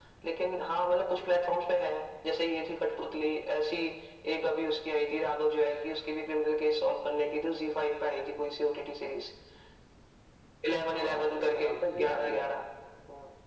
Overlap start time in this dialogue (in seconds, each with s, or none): 10.8 s